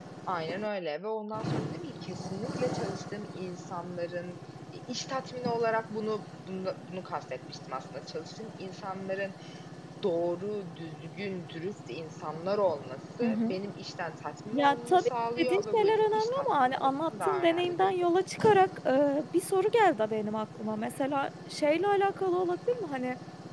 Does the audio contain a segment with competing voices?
Yes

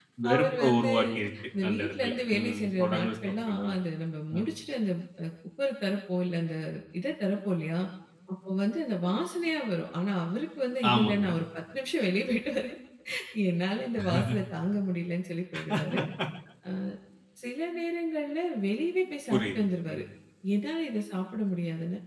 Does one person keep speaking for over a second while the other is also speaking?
Yes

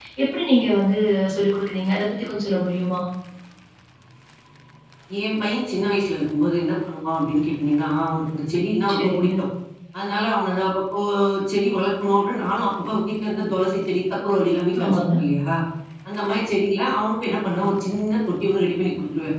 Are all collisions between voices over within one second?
Yes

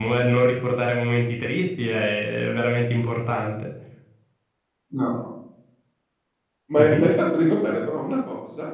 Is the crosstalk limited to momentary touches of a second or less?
Yes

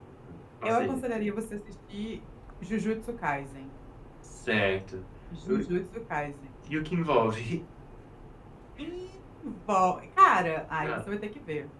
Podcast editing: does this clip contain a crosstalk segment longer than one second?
No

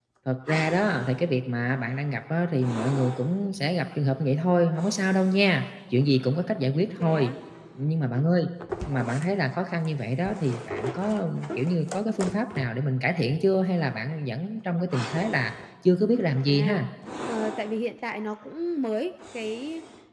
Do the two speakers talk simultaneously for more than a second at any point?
No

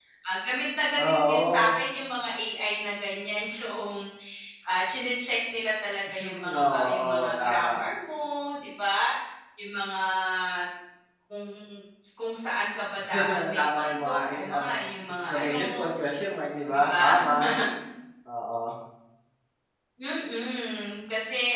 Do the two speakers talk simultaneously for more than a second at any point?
Yes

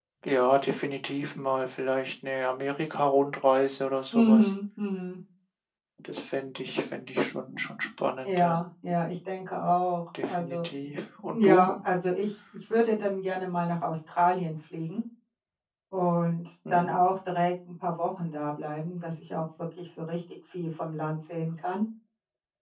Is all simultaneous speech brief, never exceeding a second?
Yes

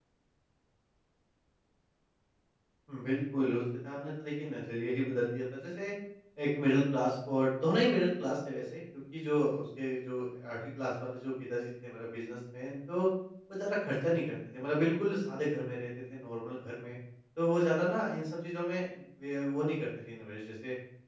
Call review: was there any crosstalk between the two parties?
No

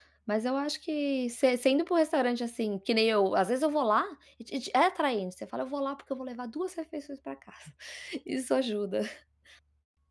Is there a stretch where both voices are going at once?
No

